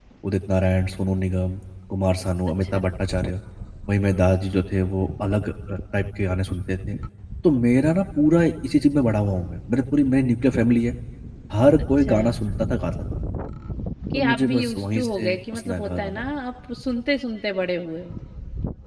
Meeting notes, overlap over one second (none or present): present